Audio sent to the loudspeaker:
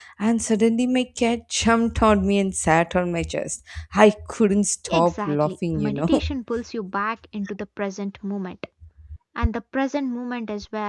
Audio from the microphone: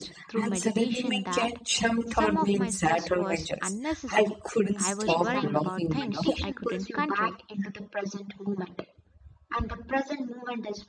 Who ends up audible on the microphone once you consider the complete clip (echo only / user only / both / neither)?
both